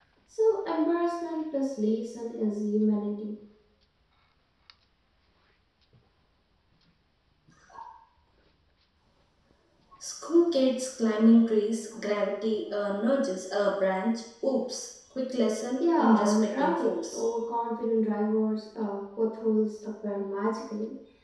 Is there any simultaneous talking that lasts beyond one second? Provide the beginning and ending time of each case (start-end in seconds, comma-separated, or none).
15.8-17.2